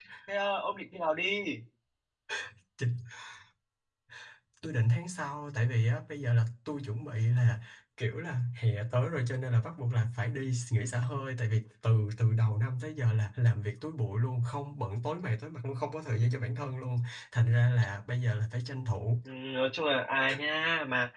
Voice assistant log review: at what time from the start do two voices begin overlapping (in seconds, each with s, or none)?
none